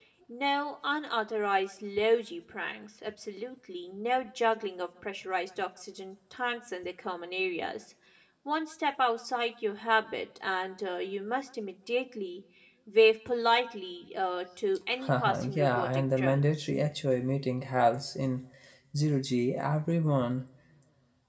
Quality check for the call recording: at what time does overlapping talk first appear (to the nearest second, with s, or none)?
15 s